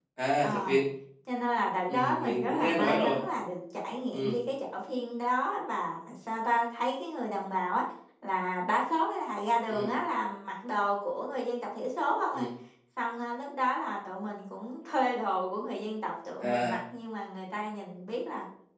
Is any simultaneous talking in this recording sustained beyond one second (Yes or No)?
Yes